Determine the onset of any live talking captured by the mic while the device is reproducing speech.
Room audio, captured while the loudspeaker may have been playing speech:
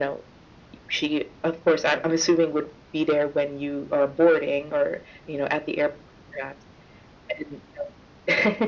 none

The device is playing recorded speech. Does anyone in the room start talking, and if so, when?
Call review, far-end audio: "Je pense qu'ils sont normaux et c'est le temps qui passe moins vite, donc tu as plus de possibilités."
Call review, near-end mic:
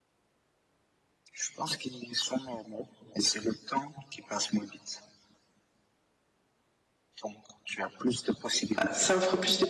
9 s

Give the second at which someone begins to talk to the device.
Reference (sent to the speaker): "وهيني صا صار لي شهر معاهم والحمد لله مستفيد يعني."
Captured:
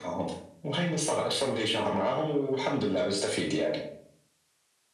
none

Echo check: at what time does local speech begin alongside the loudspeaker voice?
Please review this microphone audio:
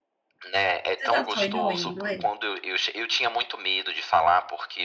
1 s

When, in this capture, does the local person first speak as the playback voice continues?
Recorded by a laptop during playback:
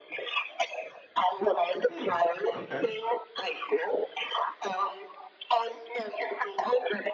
2 s

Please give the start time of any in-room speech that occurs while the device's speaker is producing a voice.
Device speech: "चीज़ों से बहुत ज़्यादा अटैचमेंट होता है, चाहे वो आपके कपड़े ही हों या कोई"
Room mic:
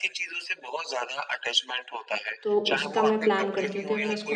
2 s

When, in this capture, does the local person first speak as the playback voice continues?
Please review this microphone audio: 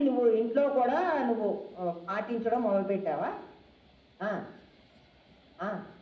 none

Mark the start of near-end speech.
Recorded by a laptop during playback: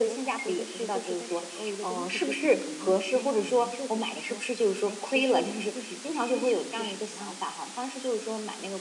none

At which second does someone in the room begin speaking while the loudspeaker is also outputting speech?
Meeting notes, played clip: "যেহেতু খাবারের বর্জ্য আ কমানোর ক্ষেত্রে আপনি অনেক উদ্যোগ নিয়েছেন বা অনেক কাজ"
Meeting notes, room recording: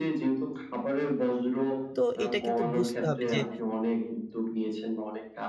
2 s

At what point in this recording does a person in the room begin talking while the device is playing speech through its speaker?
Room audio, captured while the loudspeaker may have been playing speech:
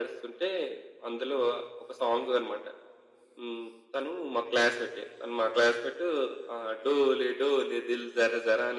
none

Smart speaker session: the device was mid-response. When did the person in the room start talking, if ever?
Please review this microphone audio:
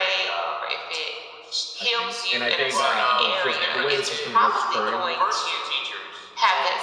2 s

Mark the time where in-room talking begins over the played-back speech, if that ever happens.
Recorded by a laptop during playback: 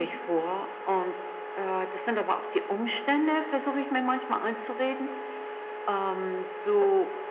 none

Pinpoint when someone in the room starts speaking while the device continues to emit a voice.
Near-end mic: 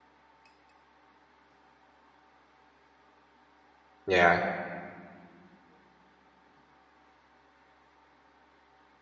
4 s

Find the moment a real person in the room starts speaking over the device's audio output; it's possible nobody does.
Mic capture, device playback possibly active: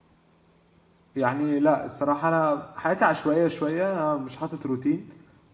1 s

